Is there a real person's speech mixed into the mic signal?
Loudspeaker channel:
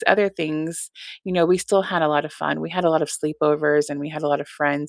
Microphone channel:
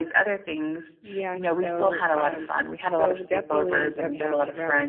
Yes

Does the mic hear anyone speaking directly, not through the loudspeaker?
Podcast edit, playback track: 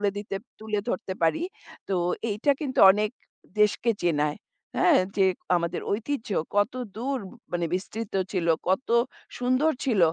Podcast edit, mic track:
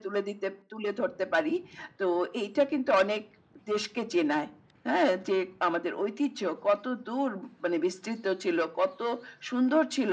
No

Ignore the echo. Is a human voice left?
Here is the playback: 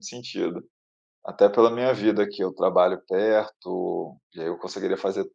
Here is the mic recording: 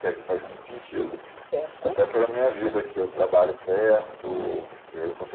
Yes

